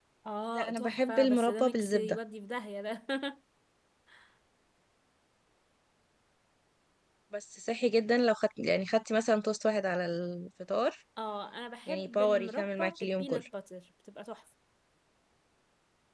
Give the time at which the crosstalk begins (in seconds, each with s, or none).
0.6 s